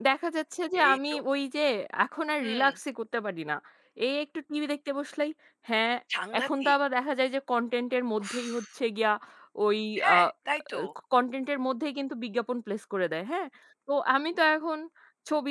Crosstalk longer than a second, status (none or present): none